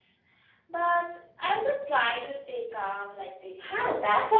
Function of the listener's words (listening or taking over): taking over